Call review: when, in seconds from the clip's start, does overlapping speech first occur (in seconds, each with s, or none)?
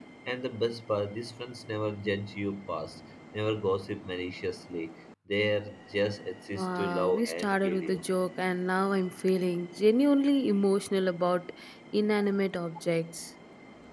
6.6 s